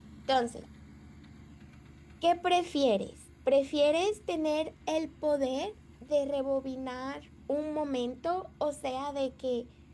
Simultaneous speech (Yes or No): No